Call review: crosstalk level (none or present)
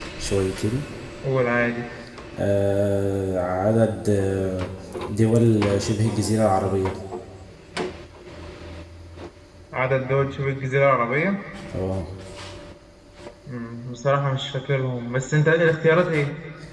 none